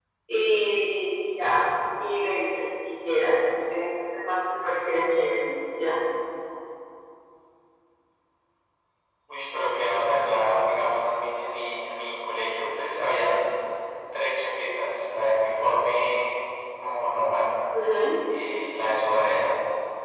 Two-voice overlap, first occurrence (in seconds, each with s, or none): none